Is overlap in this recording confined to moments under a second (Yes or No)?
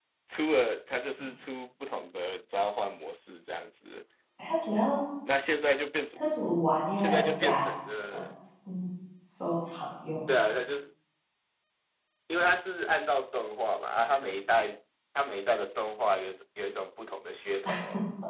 No